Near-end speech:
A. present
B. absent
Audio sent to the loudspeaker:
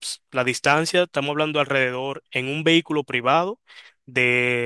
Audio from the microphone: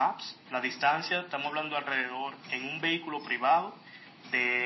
B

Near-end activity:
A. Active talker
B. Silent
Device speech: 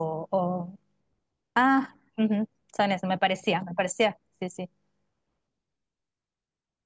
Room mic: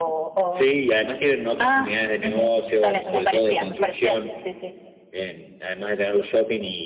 A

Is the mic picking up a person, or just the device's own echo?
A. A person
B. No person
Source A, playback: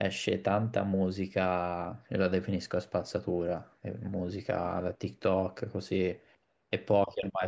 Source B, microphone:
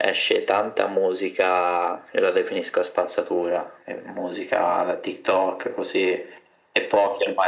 B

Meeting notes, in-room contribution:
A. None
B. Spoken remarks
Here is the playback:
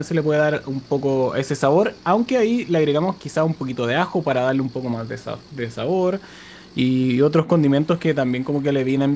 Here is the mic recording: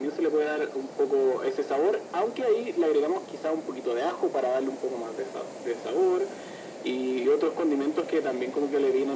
A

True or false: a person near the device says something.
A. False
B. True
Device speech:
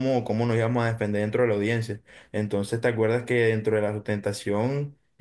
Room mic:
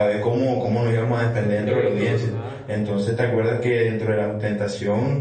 B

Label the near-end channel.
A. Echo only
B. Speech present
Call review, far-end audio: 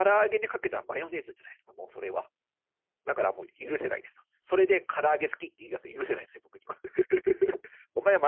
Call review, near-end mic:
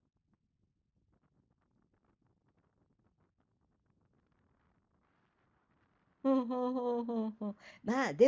B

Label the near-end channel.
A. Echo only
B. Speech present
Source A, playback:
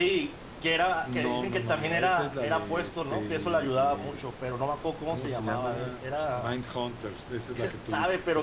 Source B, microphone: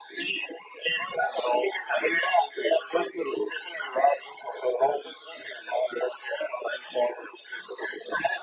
A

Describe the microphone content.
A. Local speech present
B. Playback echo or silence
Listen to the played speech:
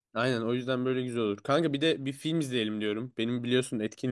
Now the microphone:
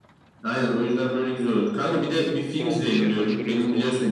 A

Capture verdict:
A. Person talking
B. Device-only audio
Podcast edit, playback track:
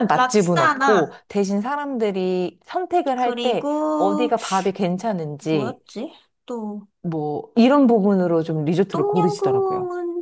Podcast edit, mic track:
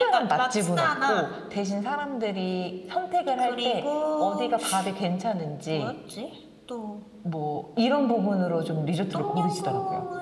B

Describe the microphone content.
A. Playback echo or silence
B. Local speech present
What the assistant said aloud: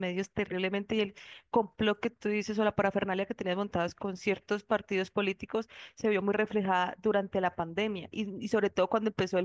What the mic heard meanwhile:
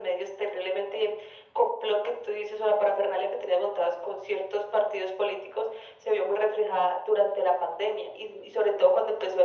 A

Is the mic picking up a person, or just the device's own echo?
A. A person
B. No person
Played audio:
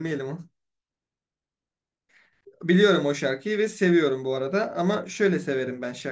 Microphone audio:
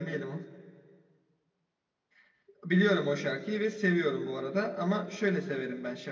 B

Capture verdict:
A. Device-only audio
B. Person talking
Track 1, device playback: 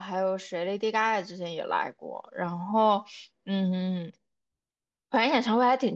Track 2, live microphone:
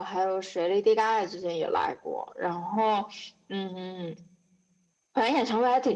A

